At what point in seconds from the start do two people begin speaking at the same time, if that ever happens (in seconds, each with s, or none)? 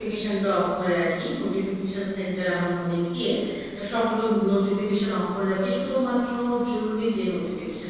none